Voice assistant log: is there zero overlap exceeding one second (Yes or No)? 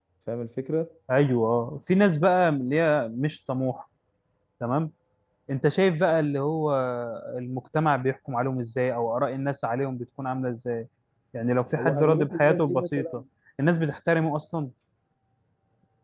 No